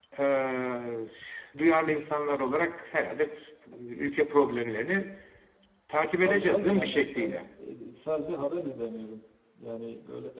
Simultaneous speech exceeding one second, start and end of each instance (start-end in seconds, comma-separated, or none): 6.2-7.4